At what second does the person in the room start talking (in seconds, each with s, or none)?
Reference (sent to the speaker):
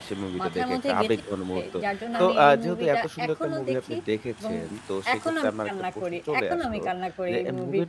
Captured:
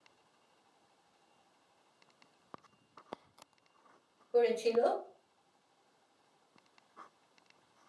4.3 s